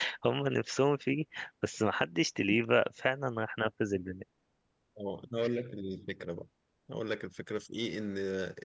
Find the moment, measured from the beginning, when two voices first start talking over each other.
none

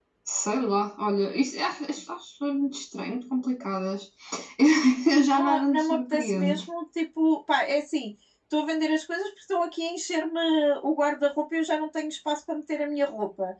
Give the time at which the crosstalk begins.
5.4 s

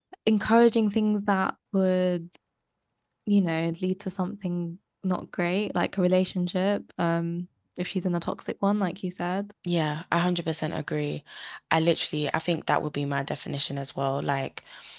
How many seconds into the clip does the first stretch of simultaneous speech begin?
none

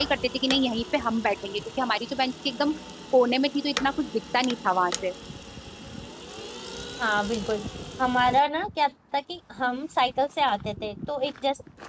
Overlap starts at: none

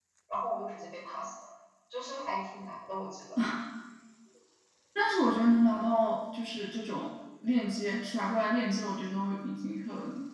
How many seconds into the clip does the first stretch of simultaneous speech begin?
none

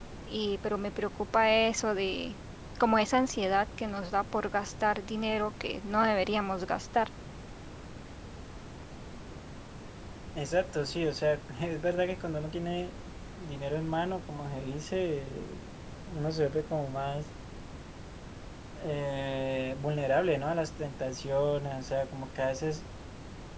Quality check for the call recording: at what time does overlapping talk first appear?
none

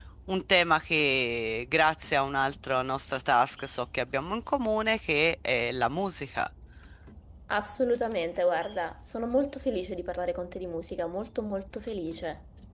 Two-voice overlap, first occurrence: none

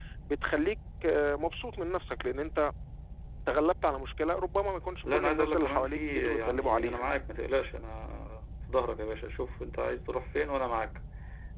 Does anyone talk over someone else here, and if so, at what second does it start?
5.0 s

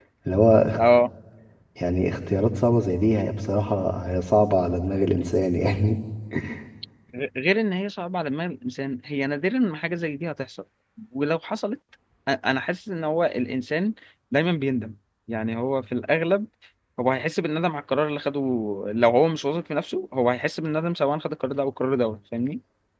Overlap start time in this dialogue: none

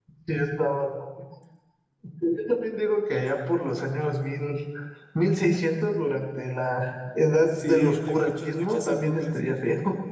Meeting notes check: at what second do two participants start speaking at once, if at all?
7.5 s

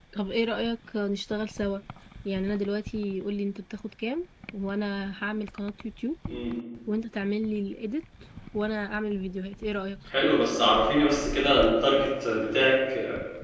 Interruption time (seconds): none

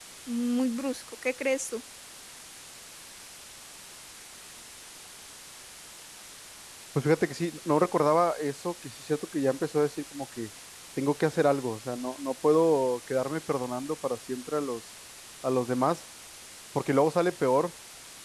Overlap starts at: none

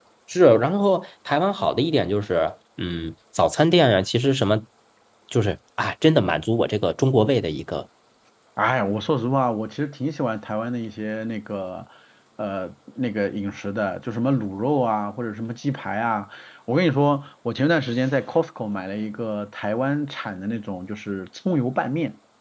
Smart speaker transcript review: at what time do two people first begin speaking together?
none

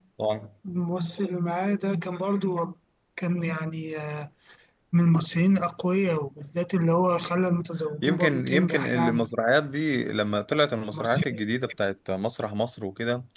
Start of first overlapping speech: 8.0 s

